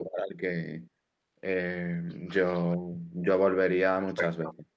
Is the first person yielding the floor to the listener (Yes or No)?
Yes